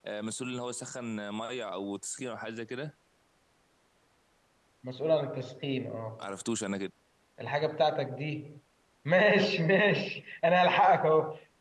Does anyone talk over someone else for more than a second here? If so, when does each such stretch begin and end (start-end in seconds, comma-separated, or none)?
none